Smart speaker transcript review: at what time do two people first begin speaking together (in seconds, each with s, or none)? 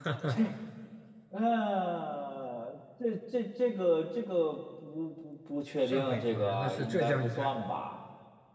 5.8 s